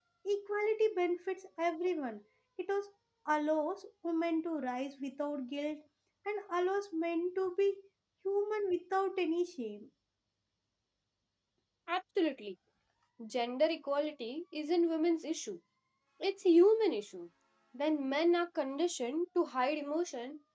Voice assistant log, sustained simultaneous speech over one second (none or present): none